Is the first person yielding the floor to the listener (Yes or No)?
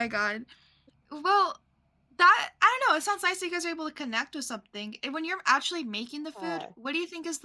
No